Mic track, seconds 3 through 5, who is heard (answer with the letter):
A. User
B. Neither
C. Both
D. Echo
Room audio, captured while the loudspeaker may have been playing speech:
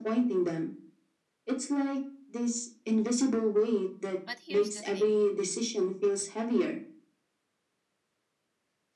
C